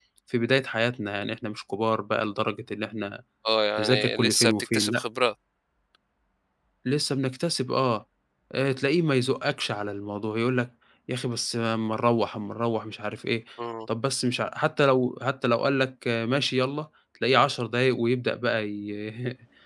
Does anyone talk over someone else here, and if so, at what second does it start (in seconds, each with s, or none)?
3.8 s